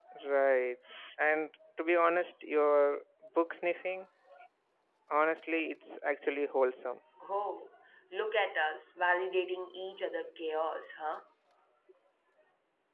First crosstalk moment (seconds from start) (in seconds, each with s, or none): none